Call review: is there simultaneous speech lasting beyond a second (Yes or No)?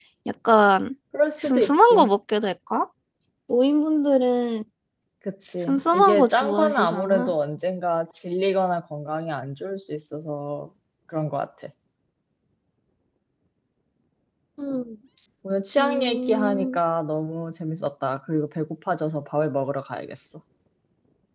Yes